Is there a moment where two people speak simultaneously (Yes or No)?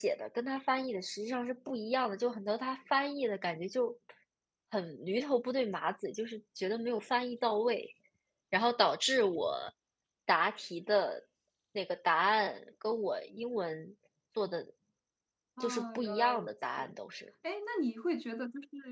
Yes